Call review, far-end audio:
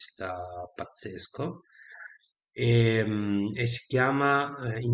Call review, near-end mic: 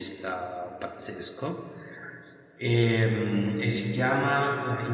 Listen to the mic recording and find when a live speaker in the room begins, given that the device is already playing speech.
none

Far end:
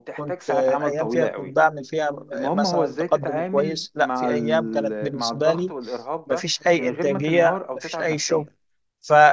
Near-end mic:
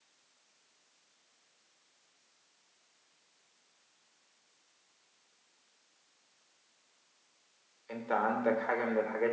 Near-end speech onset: 7.9 s

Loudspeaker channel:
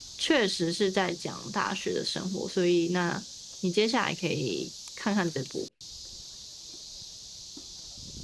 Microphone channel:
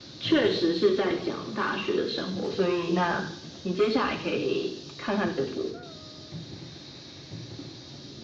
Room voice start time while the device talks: none

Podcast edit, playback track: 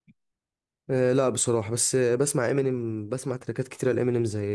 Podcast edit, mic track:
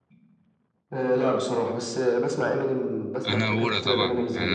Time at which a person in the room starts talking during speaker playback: 3.2 s

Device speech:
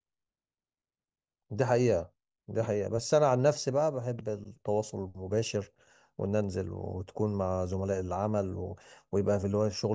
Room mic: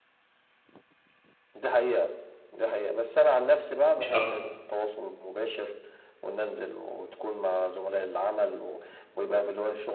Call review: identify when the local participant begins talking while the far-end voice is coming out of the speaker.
4.0 s

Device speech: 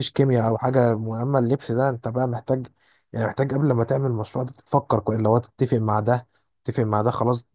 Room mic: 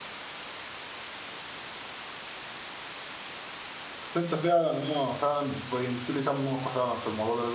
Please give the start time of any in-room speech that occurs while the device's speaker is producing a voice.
4.2 s

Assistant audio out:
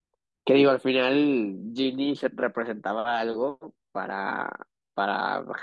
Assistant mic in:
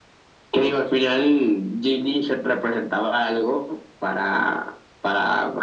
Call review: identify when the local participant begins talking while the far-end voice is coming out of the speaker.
none

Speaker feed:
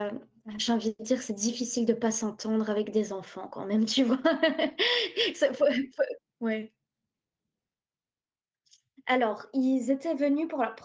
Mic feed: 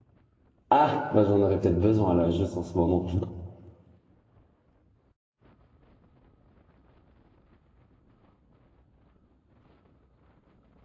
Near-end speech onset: 0.7 s

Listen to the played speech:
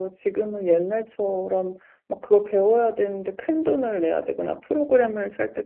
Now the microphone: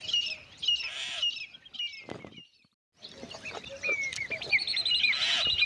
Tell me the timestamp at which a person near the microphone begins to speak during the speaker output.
none

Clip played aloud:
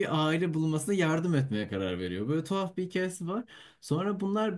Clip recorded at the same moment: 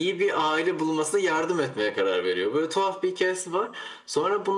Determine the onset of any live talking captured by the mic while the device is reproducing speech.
none

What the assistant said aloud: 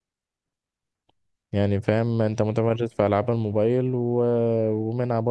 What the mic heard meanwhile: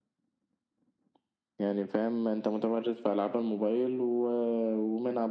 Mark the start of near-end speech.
none

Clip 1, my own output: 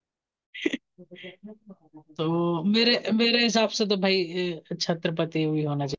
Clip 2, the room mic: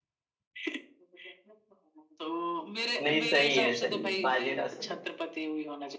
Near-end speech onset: 3.0 s

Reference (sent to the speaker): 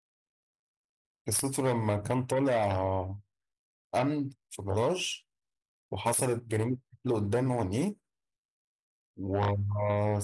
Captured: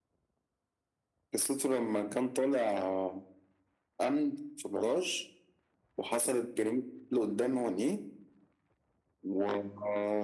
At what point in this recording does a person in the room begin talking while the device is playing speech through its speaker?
none

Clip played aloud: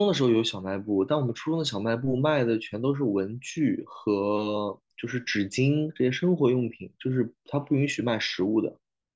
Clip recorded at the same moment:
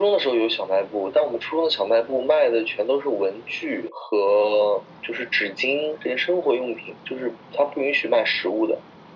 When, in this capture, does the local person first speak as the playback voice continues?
none

